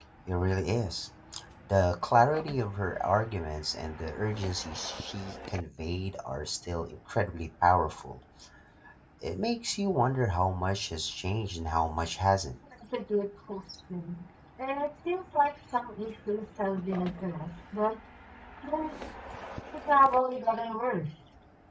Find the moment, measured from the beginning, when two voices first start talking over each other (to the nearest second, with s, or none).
none